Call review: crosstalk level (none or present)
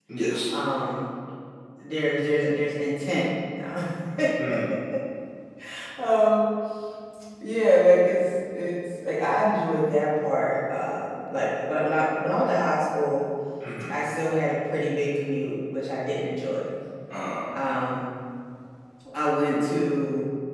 none